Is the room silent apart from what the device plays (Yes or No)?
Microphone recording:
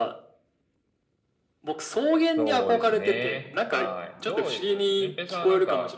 No